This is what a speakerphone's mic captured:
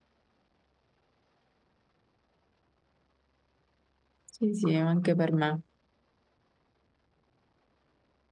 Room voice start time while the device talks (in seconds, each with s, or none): 4.2 s